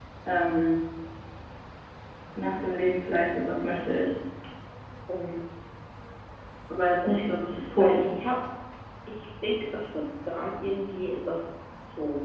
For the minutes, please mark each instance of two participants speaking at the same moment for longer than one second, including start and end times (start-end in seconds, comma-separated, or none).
none